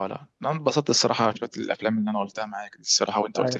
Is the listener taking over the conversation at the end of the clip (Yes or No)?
Yes